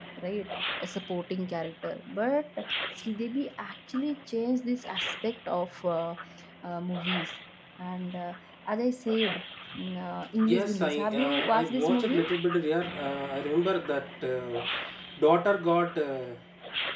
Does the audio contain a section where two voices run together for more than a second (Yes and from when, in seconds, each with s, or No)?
Yes, from 10.4 s